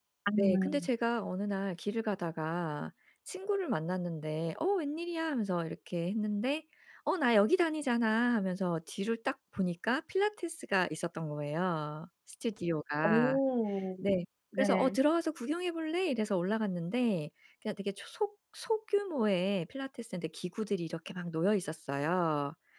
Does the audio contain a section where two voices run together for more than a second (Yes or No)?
No